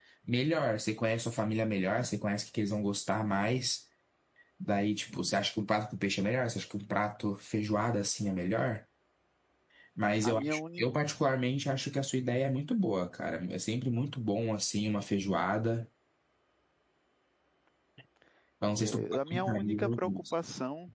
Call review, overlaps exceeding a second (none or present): present